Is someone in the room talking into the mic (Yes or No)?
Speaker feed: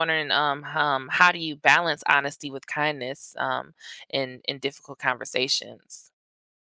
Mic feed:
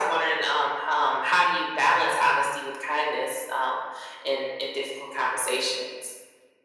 No